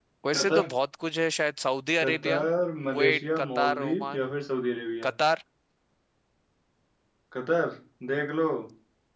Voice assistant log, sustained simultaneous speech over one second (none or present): present